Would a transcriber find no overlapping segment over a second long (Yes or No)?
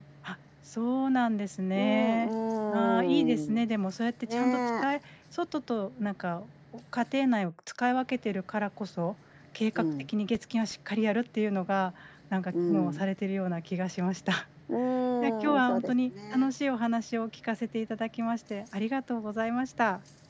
No